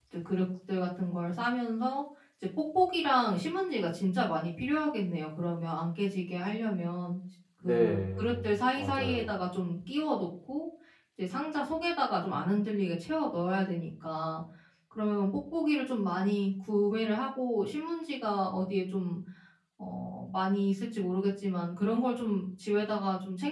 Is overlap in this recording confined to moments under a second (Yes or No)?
No